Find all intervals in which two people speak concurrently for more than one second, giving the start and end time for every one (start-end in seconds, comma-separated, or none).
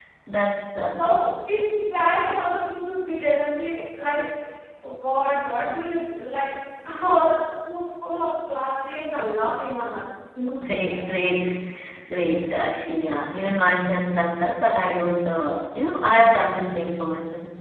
none